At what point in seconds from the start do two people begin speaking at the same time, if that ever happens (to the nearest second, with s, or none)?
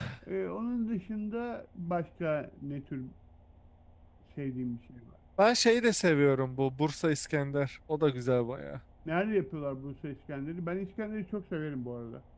none